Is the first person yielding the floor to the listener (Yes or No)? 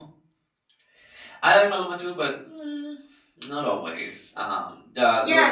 Yes